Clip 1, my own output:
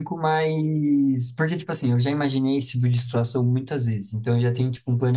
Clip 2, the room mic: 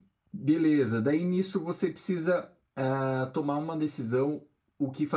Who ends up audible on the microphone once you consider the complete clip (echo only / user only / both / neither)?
user only